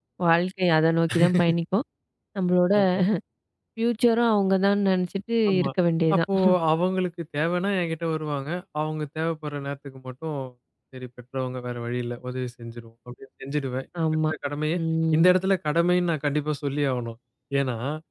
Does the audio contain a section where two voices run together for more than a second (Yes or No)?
No